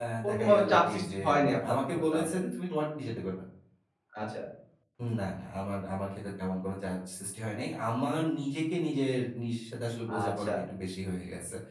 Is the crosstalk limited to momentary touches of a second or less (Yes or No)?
No